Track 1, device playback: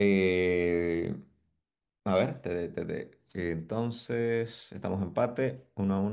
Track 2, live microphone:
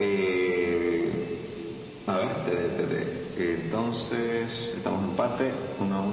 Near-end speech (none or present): none